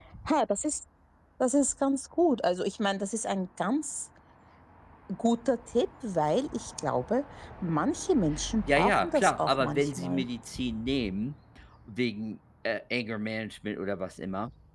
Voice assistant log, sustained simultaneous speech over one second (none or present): present